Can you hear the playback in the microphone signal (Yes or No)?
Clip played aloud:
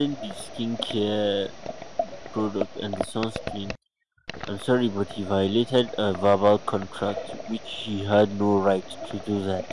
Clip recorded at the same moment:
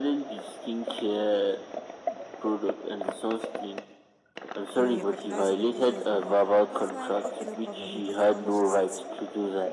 Yes